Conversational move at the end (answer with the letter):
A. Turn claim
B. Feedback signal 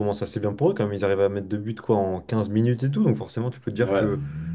B